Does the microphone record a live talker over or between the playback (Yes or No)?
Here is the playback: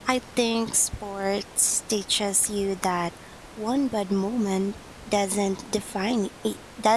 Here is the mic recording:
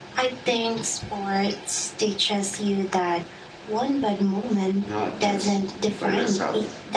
Yes